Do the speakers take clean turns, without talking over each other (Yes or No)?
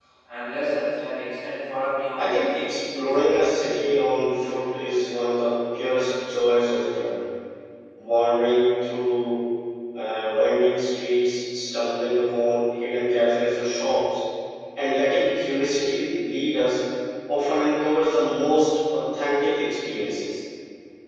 No